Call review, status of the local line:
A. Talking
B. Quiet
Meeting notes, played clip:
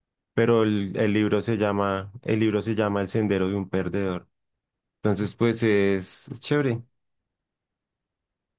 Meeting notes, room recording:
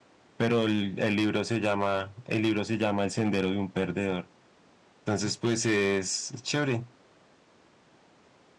B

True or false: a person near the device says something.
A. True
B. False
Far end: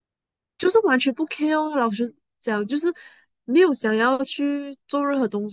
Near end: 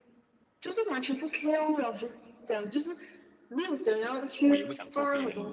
A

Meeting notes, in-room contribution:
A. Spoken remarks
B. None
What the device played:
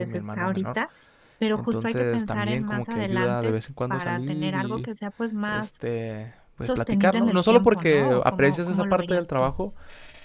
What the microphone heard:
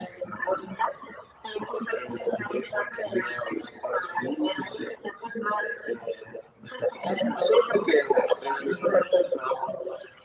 B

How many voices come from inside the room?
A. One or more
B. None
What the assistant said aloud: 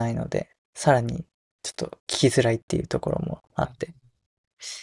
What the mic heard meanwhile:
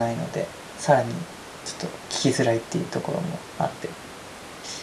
B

